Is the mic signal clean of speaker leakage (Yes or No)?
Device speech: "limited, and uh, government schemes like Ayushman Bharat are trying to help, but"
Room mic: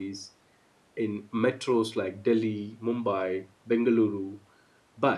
Yes